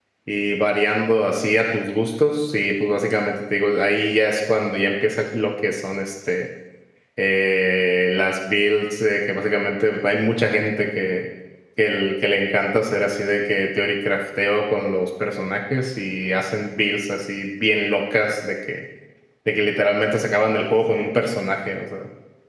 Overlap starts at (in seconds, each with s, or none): none